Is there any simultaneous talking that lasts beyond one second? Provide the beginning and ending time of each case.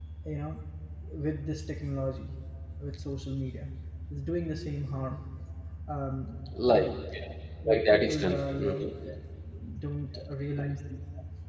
7.7-8.9

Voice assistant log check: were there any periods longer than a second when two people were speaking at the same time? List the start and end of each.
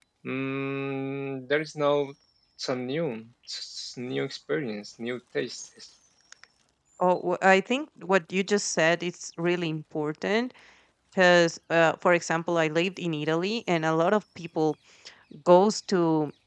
none

